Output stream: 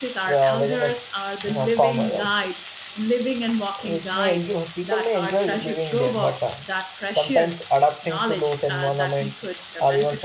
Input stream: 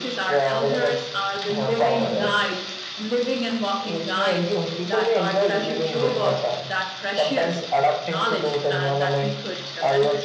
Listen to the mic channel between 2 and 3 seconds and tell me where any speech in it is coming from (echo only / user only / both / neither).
echo only